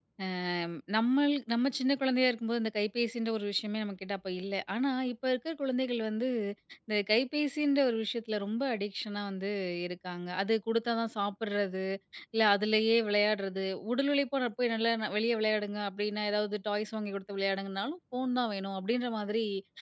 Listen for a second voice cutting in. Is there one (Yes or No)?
No